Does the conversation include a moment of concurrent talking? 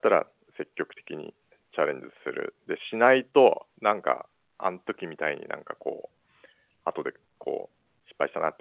No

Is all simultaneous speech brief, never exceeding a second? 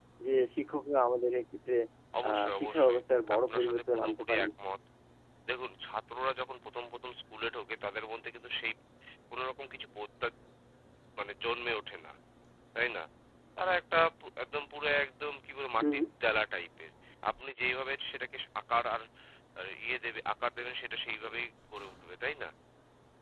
No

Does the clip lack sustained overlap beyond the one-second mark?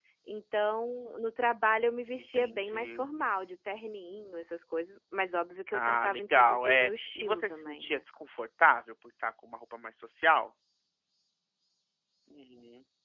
No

